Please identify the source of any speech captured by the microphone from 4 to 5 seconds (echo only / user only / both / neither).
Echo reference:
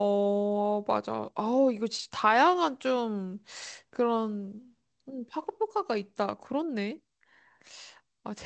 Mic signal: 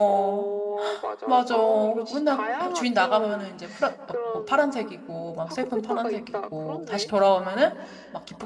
both